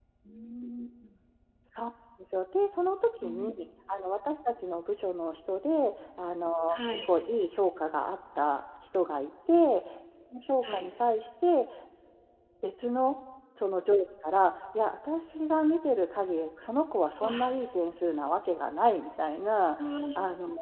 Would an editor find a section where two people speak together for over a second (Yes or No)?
No